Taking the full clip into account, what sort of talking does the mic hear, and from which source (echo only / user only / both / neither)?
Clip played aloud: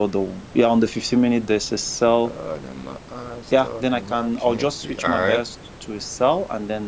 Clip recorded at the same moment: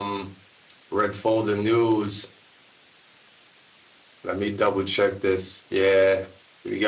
user only